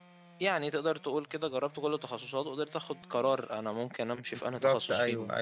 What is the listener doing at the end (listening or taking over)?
taking over